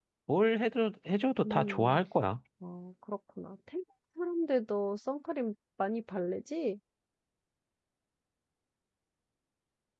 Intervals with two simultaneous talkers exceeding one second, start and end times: none

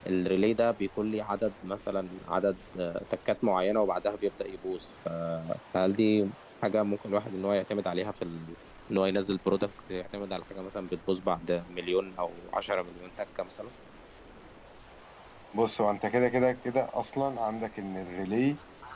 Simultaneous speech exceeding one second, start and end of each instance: none

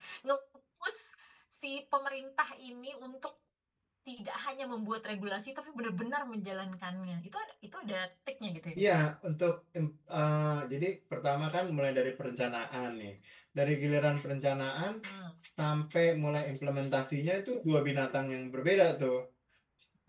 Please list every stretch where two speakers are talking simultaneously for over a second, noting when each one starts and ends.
none

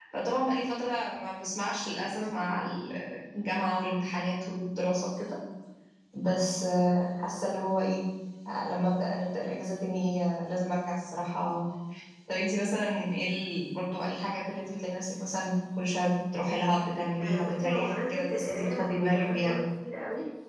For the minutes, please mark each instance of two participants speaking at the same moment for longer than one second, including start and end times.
17.2-19.5

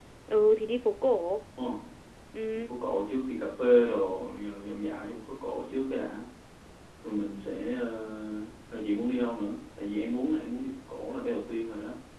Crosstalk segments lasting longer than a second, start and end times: none

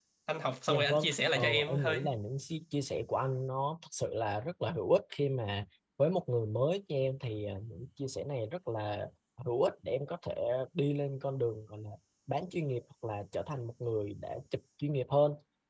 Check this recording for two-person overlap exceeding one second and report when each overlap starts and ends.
0.7-2.0

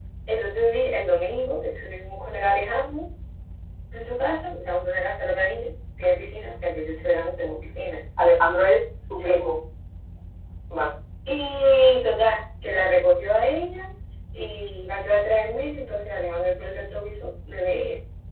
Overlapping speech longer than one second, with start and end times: none

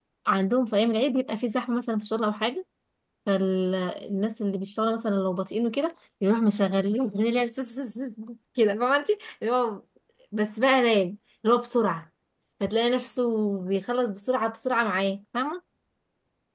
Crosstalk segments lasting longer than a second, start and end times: none

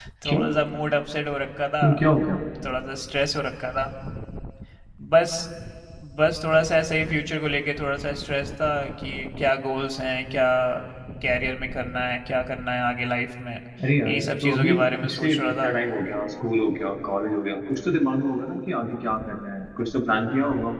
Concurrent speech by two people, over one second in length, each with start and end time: 14.1-15.7

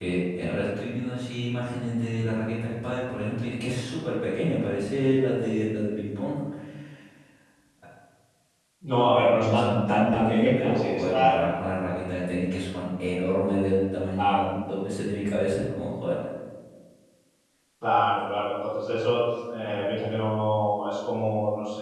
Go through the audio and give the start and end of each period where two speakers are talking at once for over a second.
9.0-11.4

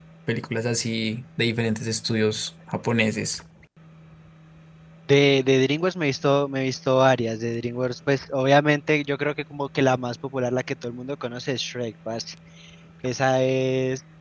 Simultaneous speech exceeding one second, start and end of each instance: none

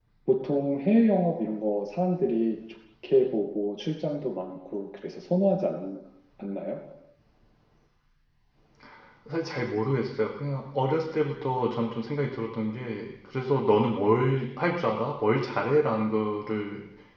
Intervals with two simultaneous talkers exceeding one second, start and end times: none

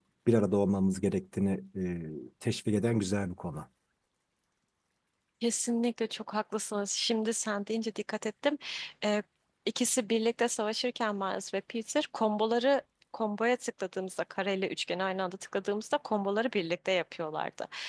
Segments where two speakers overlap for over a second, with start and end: none

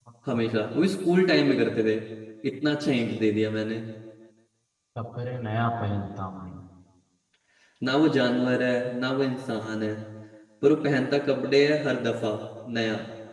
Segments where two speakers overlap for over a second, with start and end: none

